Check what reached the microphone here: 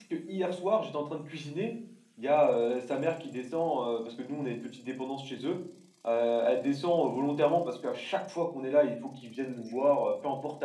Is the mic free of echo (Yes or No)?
Yes